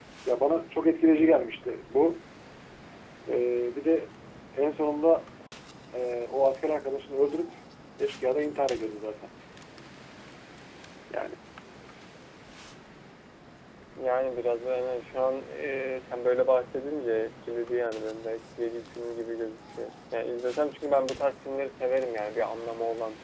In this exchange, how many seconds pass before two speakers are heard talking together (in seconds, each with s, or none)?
none